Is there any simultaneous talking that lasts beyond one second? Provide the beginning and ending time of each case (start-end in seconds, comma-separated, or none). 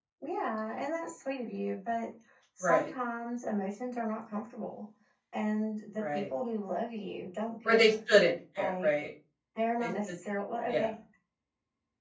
none